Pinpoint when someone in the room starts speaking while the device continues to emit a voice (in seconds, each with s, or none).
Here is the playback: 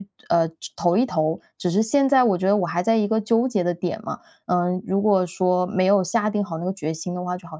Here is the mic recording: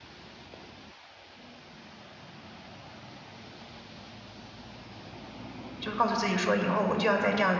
5.8 s